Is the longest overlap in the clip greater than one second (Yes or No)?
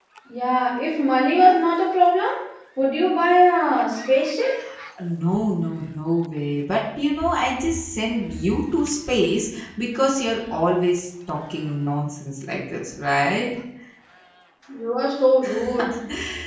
No